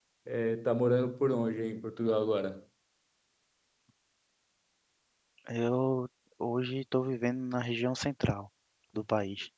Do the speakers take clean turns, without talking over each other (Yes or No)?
Yes